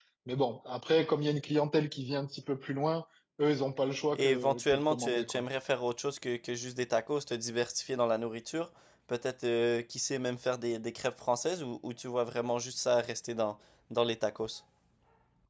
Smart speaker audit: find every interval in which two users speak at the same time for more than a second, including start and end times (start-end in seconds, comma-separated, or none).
4.2-5.4